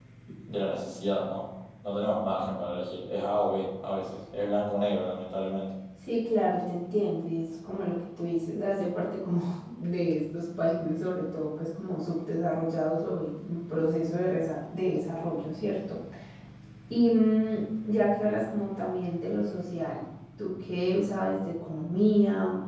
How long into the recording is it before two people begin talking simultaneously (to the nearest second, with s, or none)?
none